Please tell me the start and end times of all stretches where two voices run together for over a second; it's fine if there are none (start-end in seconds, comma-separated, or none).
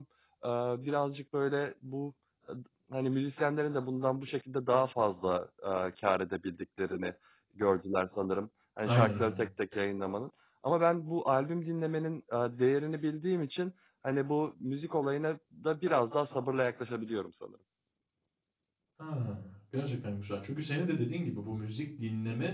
none